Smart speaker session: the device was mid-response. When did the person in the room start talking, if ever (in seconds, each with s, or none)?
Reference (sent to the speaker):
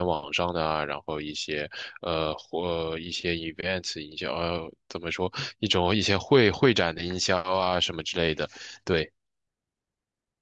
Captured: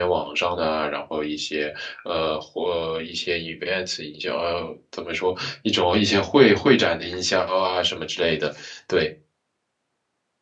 none